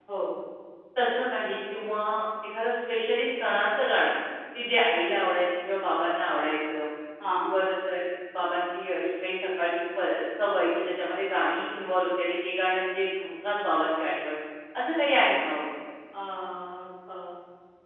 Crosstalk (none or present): none